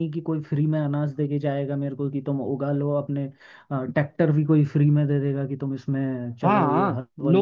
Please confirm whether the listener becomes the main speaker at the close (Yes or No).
Yes